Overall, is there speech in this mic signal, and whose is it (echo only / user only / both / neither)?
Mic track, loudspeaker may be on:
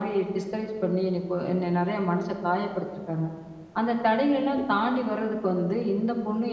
both